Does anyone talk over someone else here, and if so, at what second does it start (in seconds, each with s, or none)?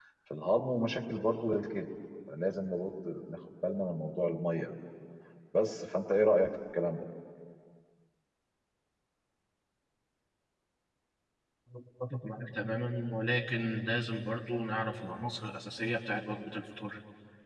none